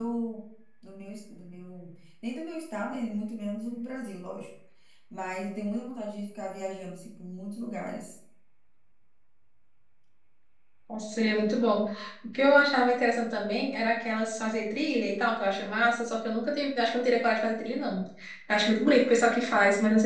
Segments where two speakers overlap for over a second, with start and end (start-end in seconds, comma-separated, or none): none